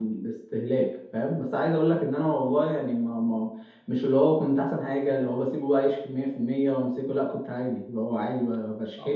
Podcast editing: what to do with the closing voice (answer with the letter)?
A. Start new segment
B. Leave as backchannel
A